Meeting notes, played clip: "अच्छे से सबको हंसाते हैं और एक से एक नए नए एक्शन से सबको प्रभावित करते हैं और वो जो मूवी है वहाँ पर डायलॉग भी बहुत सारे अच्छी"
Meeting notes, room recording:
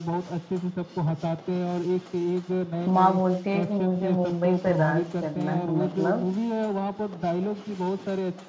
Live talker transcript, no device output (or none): माँ बोलती है कि मुझे मुंबई पर राज करना है मतलब